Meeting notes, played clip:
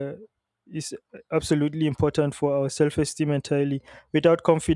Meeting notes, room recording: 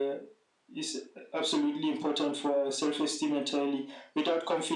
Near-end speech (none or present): none